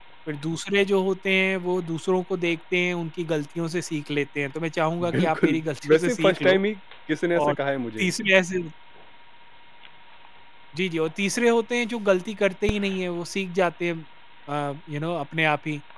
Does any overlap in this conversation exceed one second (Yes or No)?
Yes